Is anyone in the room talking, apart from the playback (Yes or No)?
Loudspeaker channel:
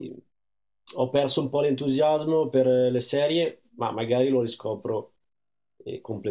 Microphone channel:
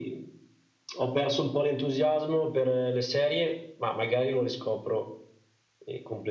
No